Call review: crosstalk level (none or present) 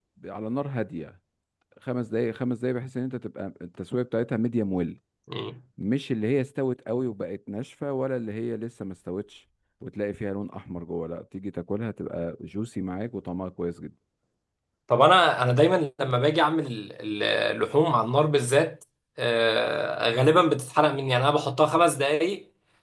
none